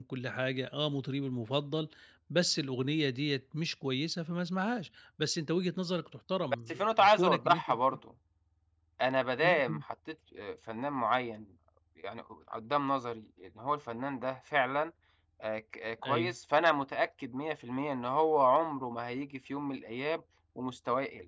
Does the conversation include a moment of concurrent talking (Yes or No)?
Yes